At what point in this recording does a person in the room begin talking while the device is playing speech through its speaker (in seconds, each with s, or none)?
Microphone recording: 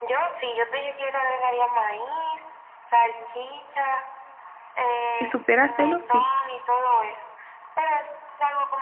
5.1 s